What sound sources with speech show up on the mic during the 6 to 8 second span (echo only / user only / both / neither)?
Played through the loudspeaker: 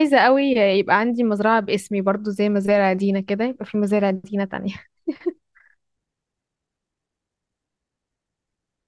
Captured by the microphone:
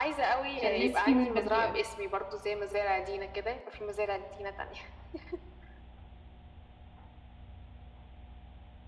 neither